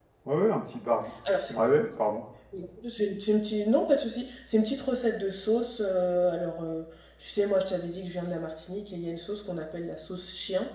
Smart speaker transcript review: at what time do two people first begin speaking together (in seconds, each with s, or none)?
none